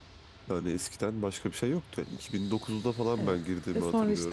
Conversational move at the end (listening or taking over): taking over